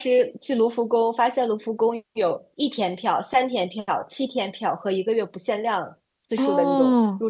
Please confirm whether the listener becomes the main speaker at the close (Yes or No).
No